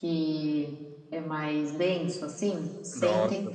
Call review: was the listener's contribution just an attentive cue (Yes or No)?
No